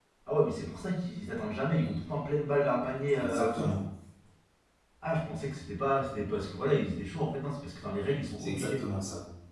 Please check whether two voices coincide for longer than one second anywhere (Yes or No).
No